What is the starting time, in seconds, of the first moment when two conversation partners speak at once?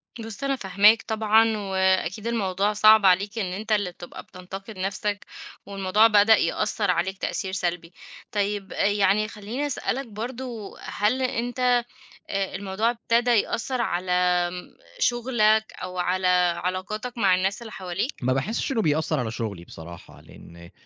none

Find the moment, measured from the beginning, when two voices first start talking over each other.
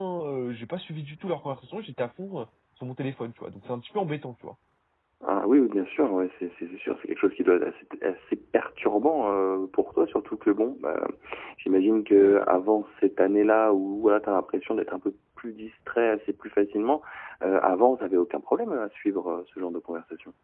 none

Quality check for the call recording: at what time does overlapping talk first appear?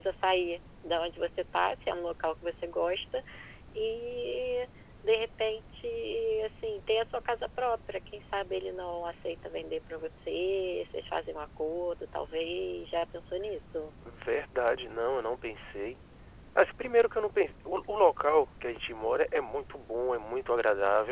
none

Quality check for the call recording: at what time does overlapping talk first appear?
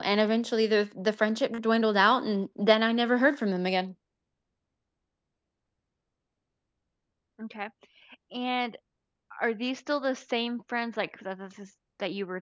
none

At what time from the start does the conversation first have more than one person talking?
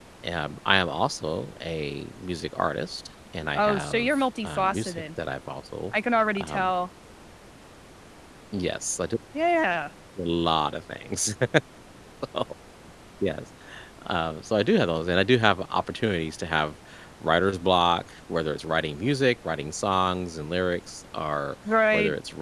3.5 s

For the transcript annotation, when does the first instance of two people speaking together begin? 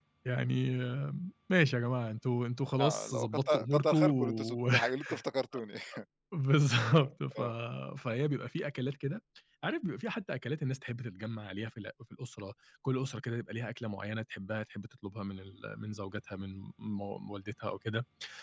2.8 s

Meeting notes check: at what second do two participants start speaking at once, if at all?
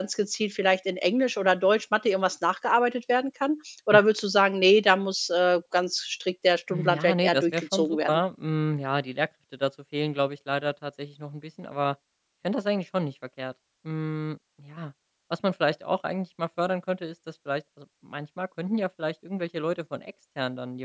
6.7 s

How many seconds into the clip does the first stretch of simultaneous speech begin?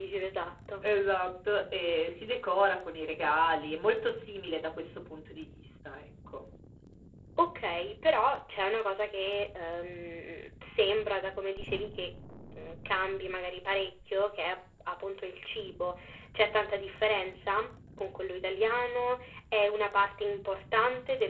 none

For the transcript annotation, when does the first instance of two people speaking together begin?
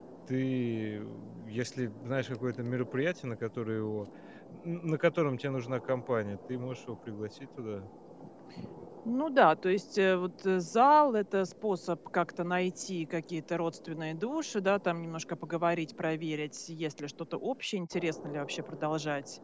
none

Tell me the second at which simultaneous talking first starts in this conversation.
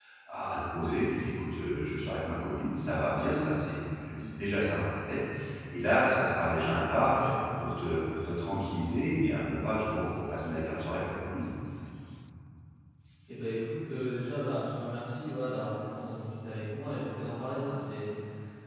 none

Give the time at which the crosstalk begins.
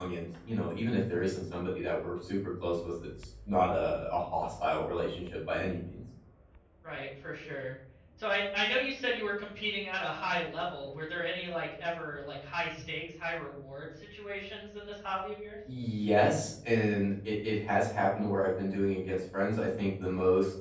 none

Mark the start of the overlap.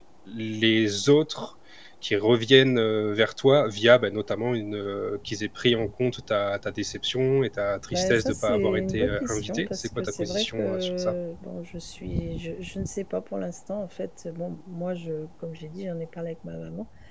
7.9 s

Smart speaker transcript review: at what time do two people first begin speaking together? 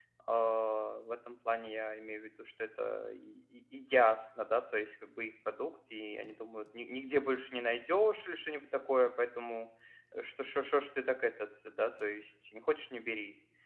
none

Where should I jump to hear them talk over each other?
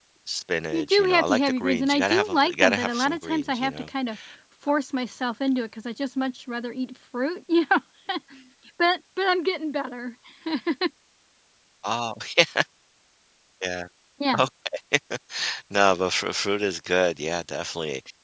0.7 s

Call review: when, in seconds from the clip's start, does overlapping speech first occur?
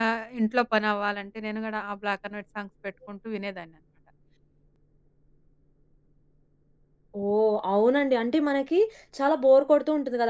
none

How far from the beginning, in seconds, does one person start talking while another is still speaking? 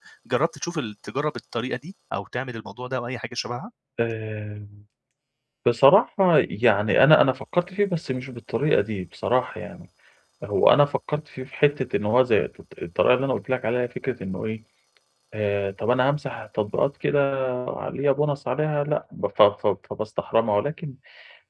none

